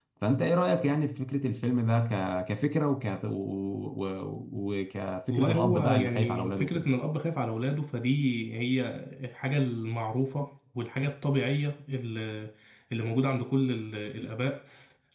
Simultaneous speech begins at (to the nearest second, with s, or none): 5 s